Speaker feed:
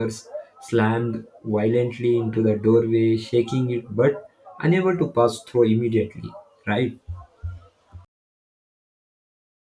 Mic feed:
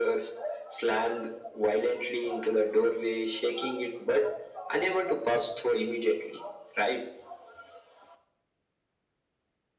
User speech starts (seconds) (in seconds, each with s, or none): none